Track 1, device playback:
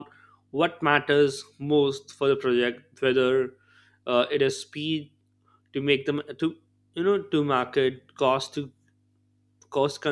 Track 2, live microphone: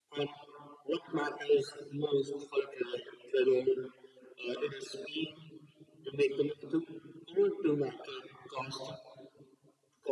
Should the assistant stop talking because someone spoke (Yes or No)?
No